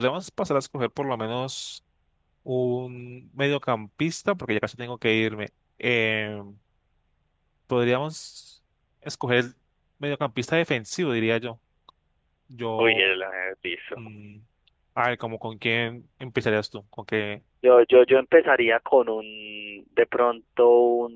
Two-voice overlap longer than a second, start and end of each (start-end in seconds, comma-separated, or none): none